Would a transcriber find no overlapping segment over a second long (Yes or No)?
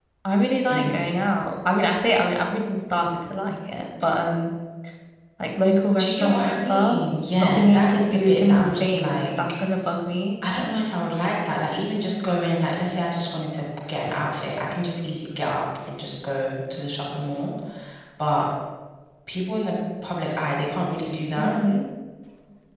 No